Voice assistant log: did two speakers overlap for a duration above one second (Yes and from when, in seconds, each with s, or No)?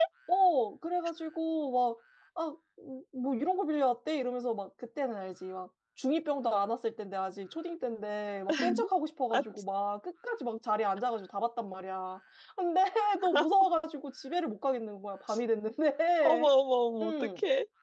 No